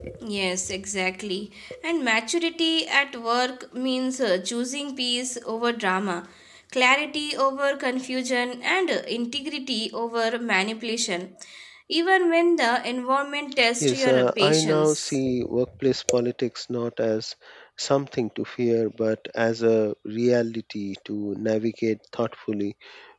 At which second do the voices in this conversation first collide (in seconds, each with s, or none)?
13.8 s